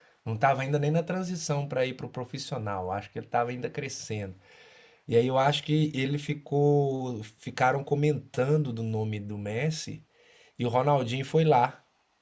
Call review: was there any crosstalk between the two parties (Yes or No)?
No